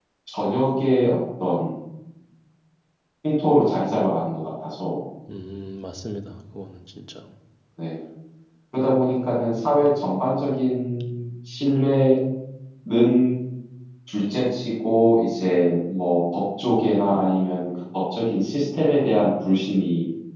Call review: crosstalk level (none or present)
none